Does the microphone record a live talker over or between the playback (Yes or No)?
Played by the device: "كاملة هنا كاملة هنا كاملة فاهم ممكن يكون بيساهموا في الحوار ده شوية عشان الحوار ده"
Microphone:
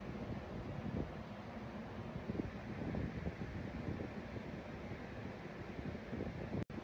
No